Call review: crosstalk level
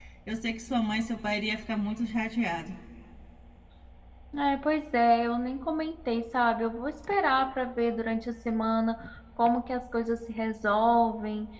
none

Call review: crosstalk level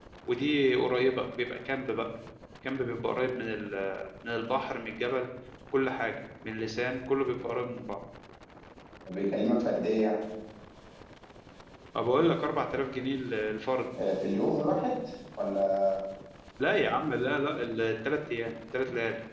none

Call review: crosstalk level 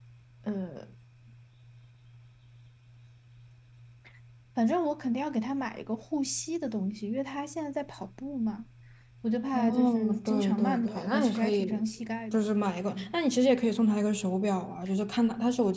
present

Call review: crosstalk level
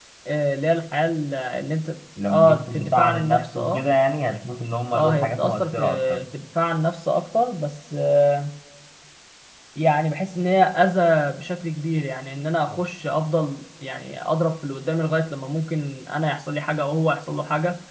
present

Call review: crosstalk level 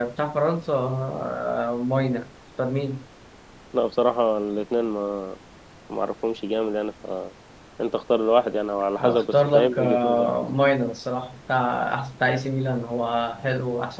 present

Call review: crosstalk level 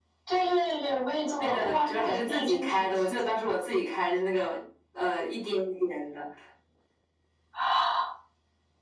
present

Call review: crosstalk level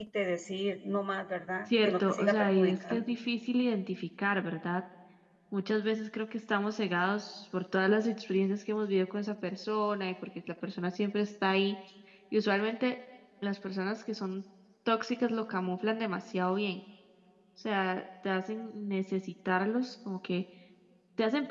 present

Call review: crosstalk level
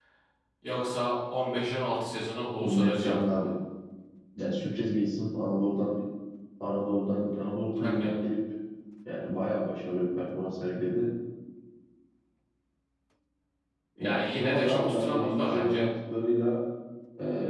present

